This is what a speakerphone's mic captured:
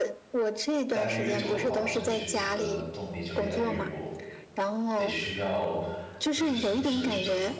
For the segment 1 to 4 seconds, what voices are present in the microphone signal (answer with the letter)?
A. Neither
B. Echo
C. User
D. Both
D